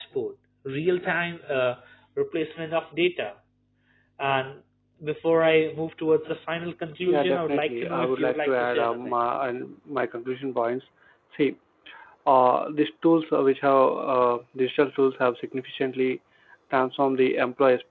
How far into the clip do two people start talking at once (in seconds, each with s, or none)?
7.1 s